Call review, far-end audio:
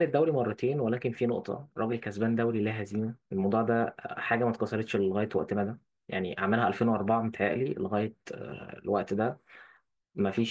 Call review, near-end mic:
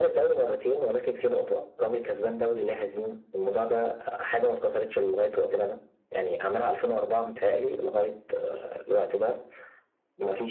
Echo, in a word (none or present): present